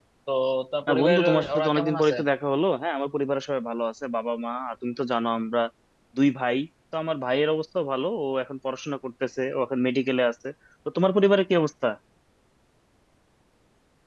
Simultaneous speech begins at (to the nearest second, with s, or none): 1 s